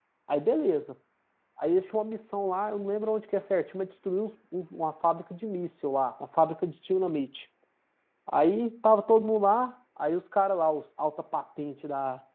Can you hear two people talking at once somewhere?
No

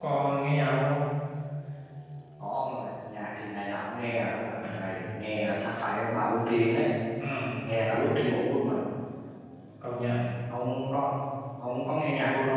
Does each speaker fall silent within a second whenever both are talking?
Yes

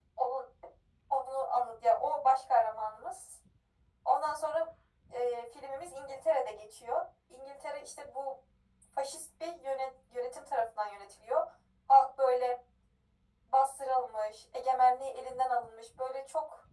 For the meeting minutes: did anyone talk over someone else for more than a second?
No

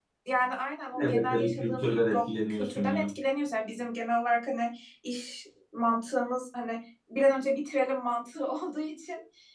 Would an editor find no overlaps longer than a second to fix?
No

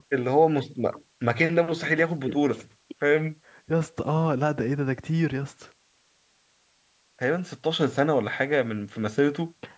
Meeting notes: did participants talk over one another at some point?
No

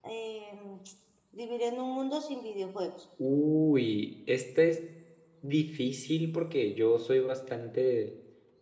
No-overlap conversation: Yes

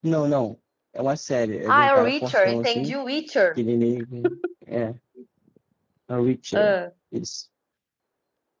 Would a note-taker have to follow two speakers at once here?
Yes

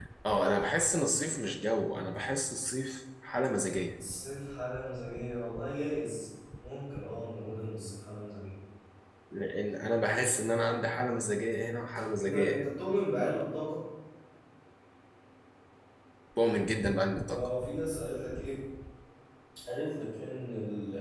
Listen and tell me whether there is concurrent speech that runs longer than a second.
No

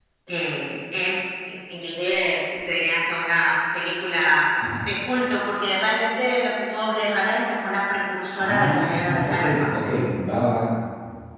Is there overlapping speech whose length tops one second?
Yes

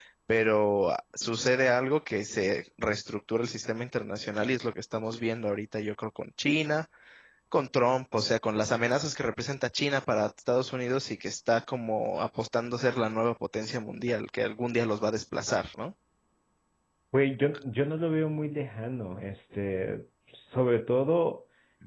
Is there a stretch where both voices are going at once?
No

